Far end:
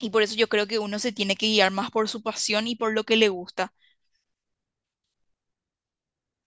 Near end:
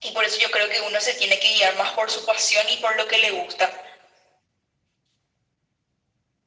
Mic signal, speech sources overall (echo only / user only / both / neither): echo only